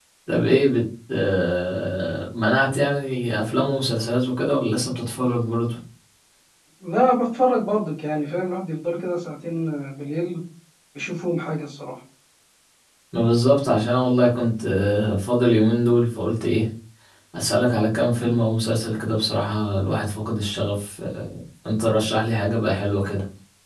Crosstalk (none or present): none